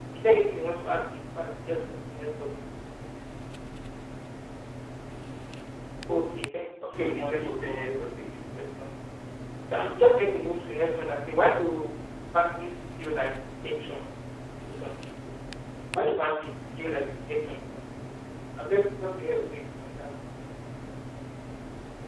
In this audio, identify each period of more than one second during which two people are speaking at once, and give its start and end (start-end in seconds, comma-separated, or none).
6.8-8.1